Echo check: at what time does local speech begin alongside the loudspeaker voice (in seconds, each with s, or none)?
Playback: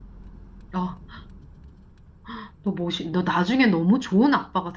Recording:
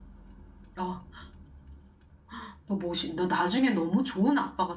none